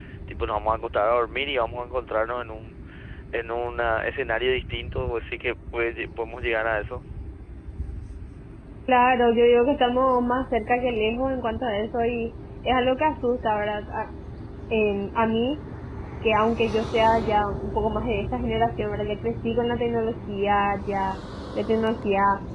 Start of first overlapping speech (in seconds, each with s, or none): none